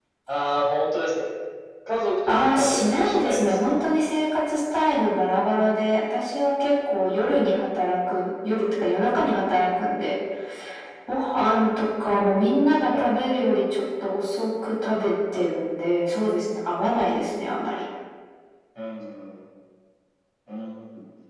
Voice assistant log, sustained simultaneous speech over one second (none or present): present